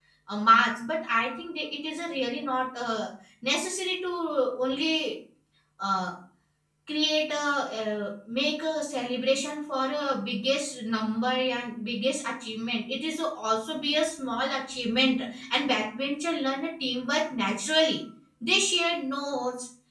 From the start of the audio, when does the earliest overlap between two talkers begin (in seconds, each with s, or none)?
none